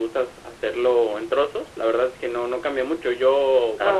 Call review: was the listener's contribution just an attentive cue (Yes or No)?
Yes